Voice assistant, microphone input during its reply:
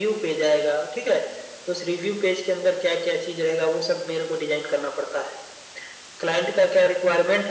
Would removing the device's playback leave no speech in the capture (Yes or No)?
Yes